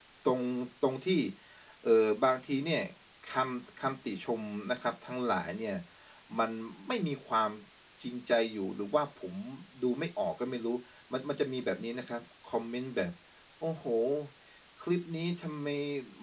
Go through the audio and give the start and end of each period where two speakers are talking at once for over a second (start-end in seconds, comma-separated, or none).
none